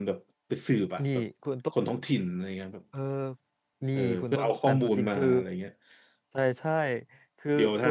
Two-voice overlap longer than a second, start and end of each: 4.0-5.3

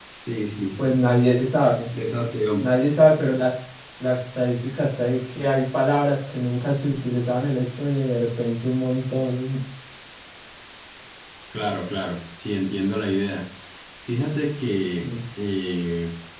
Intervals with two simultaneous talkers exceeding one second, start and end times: none

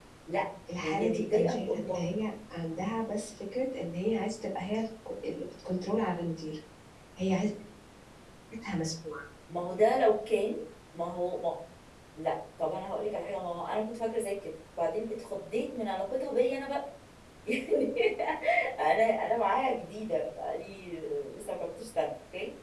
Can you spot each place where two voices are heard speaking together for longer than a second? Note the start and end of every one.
0.8-2.1

